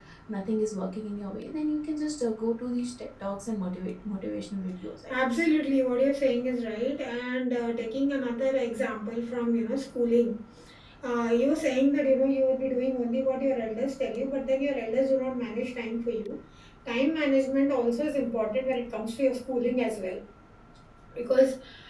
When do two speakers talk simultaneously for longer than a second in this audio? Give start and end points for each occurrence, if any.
none

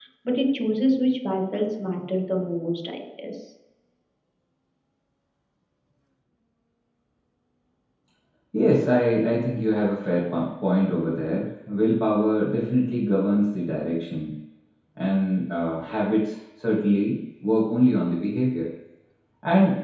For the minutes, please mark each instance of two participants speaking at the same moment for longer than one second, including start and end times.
none

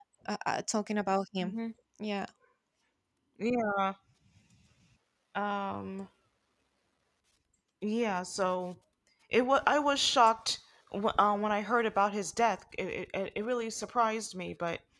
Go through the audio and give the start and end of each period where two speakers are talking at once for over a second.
none

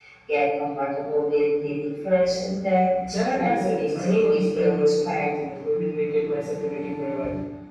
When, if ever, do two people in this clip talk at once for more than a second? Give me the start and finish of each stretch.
3.1-5.3

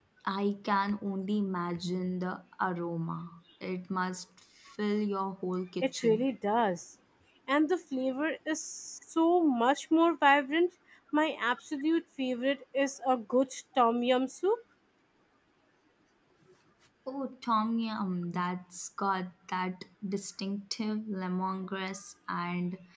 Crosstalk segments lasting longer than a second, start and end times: none

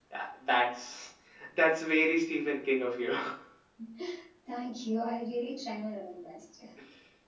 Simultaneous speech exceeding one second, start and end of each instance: none

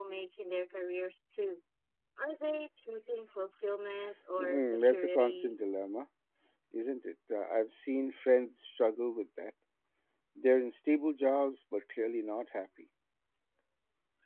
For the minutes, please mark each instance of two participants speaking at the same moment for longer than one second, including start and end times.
4.4-5.6

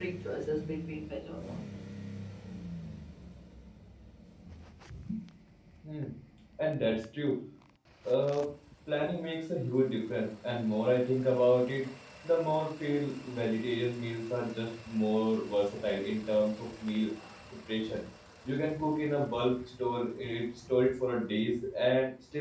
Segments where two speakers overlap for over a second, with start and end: none

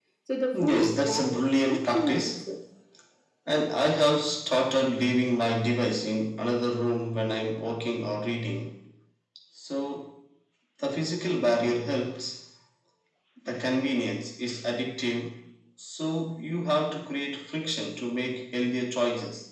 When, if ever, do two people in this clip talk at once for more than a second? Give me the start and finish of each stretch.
0.5-2.4

